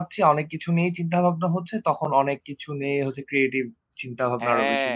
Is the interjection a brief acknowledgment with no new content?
No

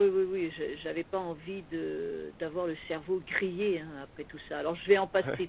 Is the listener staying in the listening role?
Yes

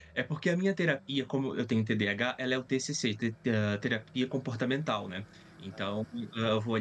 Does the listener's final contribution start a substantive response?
No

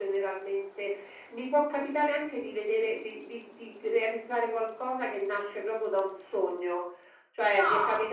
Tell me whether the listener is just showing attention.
Yes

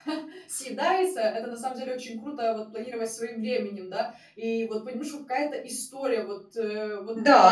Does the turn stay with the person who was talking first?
No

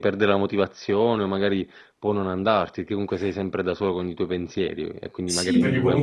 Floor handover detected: Yes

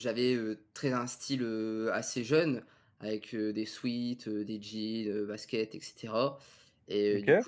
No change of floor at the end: Yes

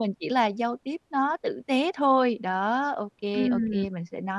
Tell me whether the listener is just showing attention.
Yes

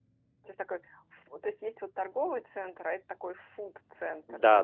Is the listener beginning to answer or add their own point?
Yes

